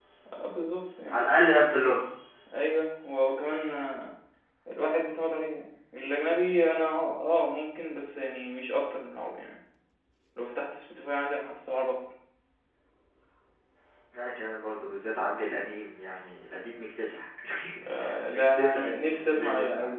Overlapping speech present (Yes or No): Yes